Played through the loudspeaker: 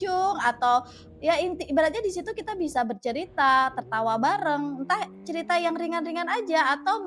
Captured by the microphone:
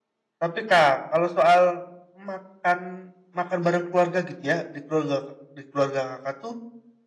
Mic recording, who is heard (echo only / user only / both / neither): user only